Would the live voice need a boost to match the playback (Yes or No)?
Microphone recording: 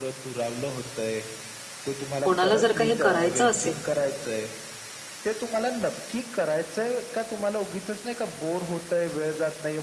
No